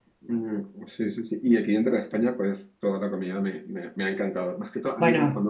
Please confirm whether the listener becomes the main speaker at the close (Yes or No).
No